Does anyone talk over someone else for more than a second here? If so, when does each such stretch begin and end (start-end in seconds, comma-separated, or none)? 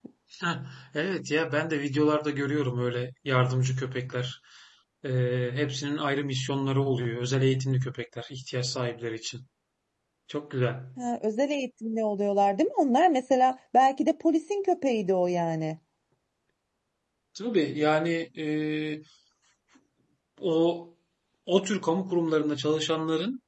none